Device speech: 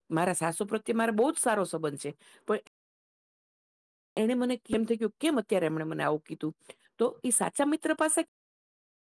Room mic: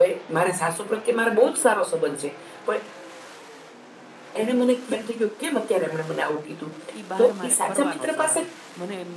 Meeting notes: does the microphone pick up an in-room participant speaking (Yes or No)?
Yes